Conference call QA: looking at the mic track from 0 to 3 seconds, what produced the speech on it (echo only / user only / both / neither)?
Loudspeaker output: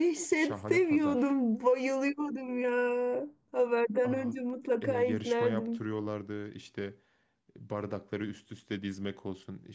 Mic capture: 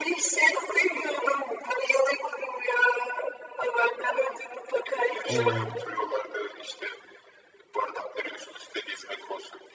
echo only